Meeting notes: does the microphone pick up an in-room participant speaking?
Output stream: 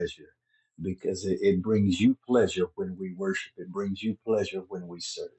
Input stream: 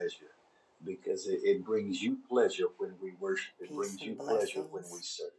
Yes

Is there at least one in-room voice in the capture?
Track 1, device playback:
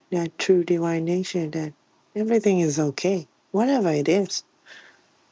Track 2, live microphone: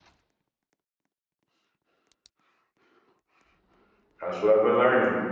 Yes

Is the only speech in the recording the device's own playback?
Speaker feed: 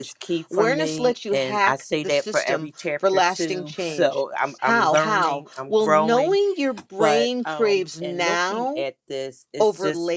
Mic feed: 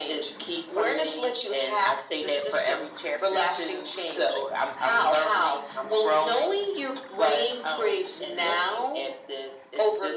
Yes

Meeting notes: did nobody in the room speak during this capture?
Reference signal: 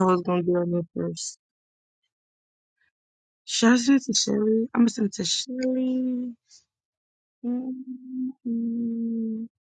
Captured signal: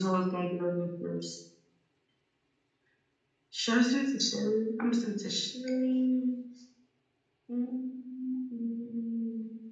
Yes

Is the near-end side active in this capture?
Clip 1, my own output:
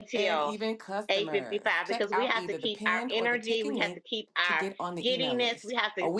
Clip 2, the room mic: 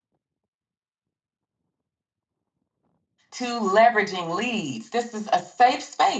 Yes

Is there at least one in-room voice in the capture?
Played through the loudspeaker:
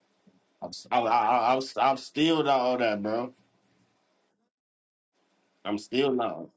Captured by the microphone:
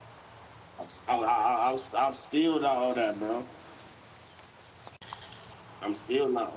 No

